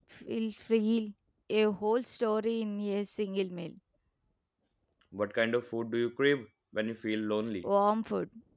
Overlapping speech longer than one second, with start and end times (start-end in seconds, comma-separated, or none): none